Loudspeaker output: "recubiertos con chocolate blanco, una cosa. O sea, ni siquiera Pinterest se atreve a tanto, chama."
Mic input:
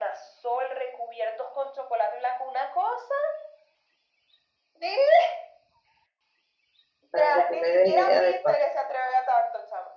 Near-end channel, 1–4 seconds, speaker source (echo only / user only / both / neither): echo only